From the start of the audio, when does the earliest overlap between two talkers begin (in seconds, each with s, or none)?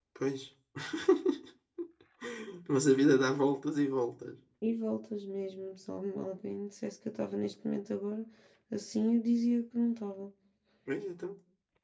none